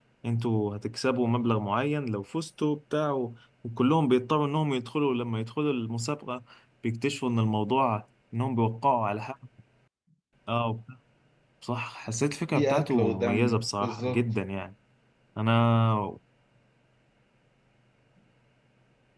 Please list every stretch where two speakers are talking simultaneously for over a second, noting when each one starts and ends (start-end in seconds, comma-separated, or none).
12.6-14.2